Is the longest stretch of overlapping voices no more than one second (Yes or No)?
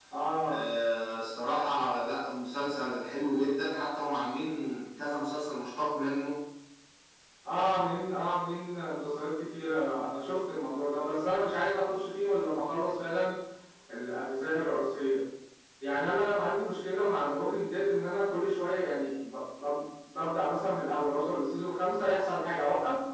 Yes